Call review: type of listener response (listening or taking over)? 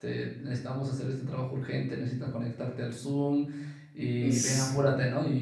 listening